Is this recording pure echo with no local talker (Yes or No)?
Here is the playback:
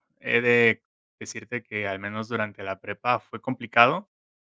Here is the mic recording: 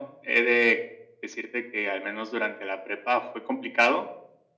Yes